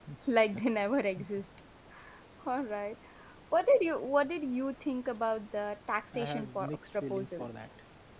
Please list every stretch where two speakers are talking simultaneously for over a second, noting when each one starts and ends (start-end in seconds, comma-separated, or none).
6.1-7.7